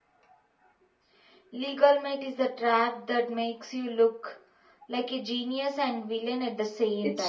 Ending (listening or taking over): taking over